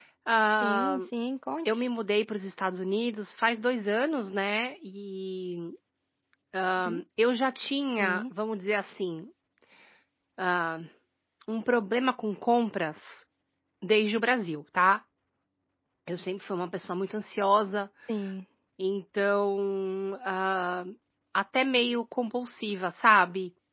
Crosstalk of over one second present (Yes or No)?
No